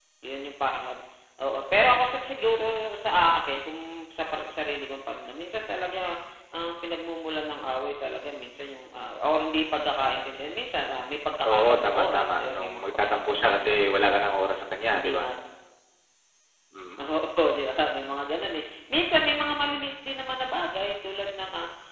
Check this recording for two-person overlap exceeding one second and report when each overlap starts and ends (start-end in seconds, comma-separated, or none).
11.5-14.0